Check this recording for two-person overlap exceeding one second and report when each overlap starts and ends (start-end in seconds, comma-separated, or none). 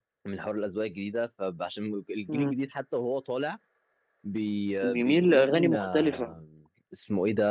4.8-6.3